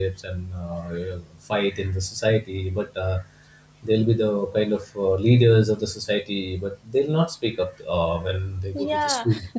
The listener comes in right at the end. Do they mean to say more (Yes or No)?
Yes